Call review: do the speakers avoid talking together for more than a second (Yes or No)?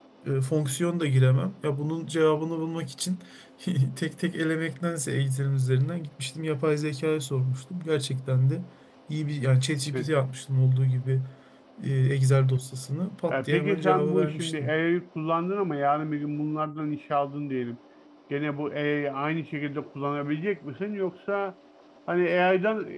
No